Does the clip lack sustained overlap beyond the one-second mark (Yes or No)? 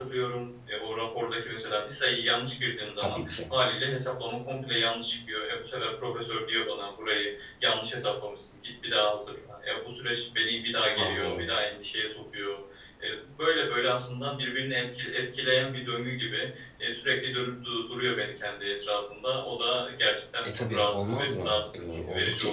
No